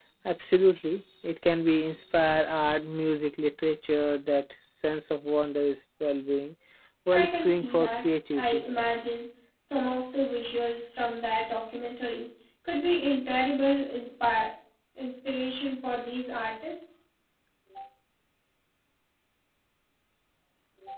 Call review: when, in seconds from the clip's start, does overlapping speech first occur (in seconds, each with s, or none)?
7.1 s